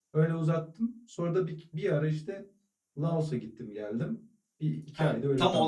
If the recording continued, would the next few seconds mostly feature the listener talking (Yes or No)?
Yes